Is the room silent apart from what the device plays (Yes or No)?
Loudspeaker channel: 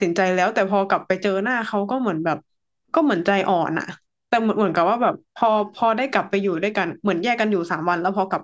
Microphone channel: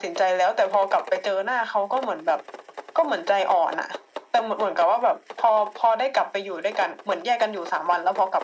Yes